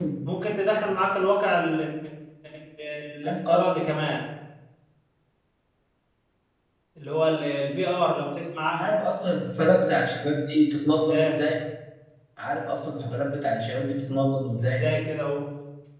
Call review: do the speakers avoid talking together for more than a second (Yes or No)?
Yes